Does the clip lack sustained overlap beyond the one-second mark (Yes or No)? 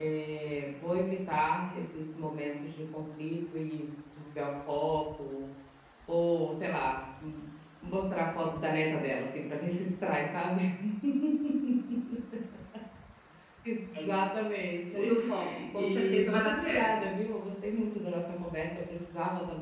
No